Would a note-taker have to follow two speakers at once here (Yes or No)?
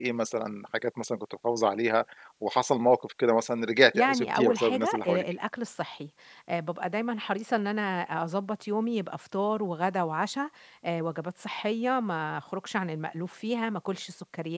Yes